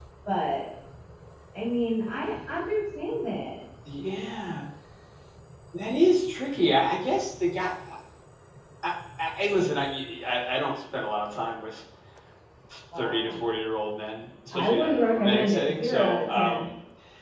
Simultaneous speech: Yes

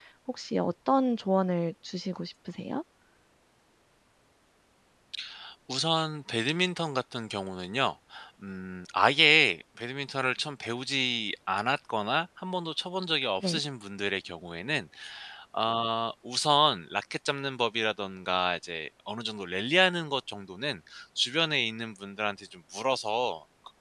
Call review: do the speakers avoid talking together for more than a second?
Yes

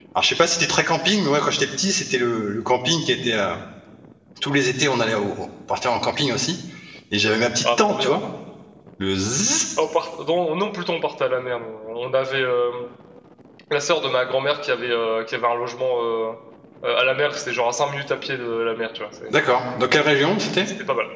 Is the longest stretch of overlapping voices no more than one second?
Yes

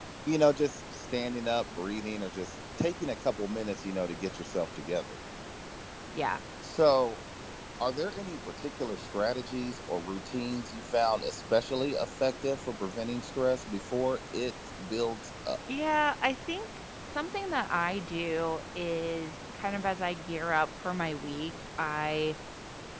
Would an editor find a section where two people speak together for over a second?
No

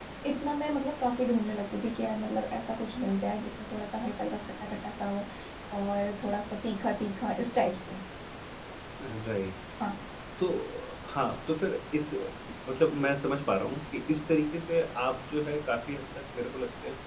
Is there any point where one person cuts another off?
No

